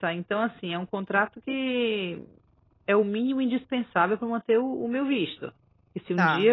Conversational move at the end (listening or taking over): listening